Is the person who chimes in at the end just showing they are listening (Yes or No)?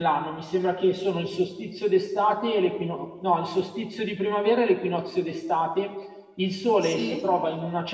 Yes